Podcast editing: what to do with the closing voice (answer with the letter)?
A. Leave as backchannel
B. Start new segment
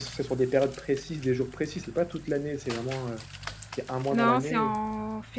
B